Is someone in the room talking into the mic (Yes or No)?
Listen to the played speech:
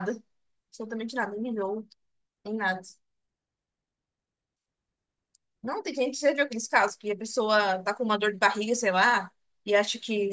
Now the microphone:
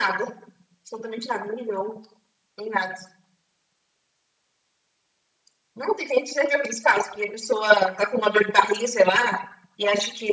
No